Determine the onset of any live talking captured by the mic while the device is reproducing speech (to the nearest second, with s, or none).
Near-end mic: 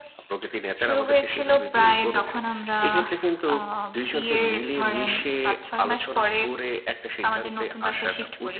none